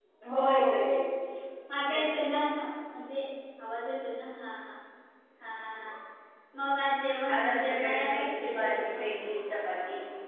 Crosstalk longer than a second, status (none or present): present